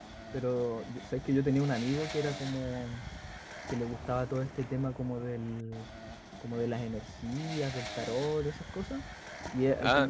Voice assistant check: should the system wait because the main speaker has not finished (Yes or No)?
Yes